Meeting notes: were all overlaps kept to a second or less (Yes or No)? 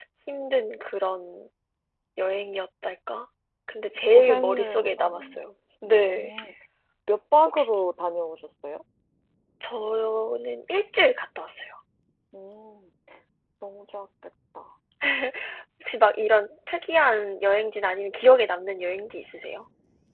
No